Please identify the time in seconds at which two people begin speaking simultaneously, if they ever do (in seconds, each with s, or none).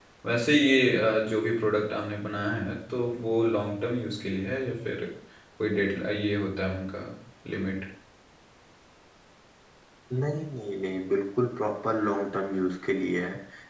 none